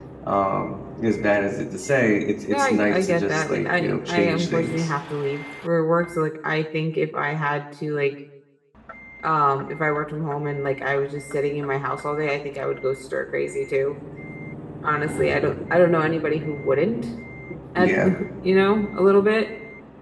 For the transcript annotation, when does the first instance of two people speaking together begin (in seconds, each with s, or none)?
2.5 s